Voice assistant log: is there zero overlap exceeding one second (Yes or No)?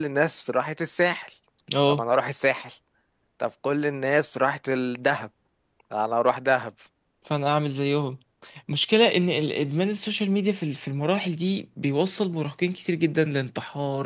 Yes